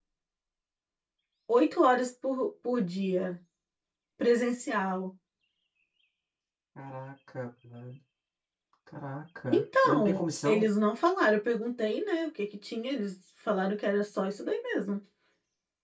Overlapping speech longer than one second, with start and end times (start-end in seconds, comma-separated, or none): 9.5-10.7